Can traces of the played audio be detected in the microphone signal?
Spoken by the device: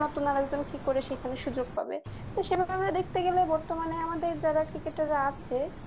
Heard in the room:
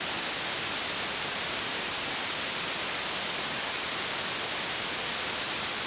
No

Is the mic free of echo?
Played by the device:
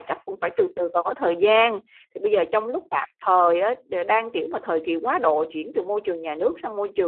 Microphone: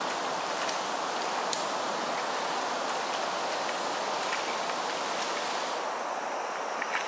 Yes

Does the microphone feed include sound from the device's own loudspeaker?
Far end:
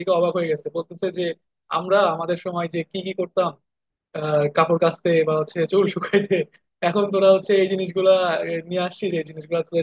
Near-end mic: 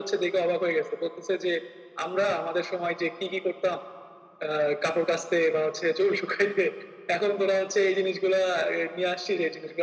Yes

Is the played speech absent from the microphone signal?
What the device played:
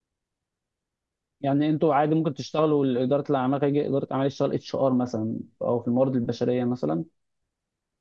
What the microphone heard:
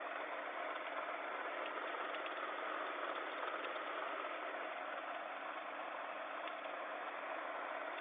Yes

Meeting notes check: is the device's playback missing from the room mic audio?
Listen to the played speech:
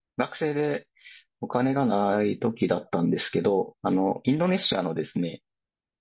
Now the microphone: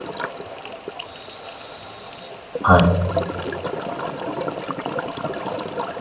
Yes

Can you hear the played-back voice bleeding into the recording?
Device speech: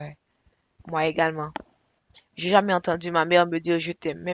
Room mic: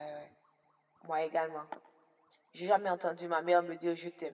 Yes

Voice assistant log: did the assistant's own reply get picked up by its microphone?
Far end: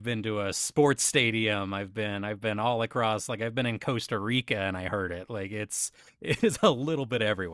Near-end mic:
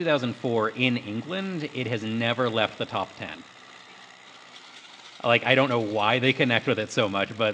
No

